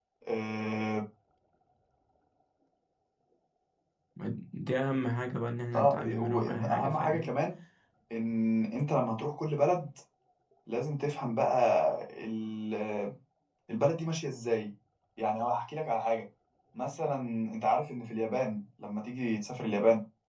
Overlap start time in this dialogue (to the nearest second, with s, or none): 6 s